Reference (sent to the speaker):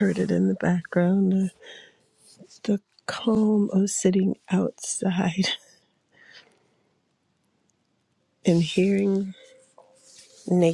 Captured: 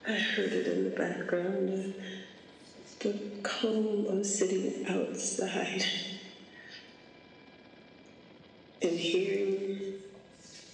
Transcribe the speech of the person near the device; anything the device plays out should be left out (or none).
none